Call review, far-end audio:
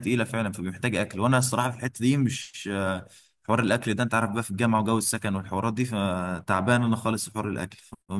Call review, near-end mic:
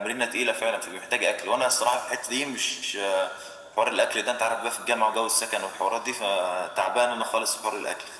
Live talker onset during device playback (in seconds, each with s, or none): none